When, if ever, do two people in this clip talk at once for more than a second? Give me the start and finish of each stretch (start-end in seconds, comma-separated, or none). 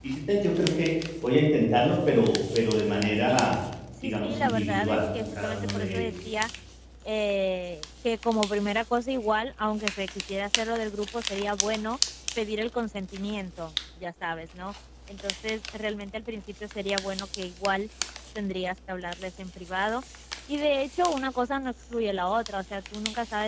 4.0-6.1